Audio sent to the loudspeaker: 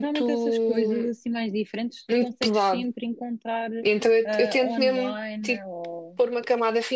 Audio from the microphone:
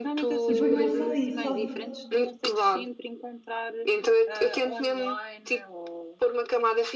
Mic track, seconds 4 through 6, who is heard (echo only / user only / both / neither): echo only